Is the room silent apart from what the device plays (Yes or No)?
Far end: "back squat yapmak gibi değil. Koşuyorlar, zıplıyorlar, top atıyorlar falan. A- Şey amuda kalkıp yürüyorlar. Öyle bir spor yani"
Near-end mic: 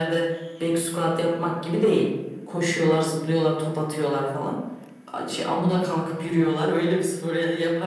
Yes